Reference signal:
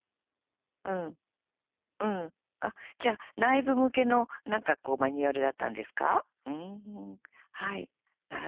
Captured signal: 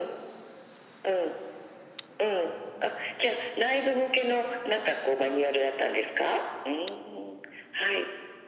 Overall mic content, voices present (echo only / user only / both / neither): echo only